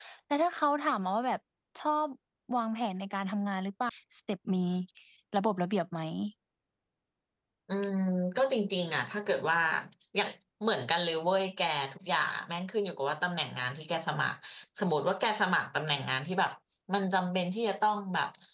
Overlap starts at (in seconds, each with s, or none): none